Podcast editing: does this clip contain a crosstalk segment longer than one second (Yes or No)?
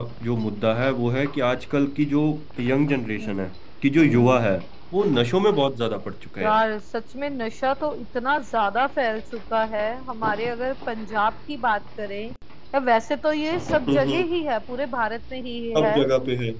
No